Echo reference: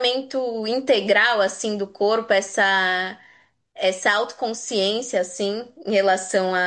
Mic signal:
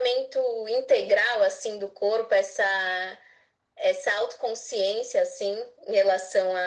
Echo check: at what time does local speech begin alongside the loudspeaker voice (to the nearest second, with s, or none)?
none